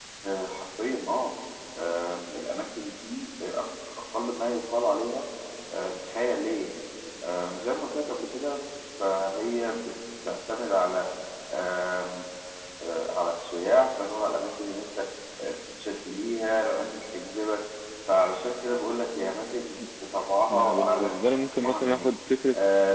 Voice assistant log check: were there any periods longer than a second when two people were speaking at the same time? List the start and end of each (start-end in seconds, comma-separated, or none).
20.5-22.1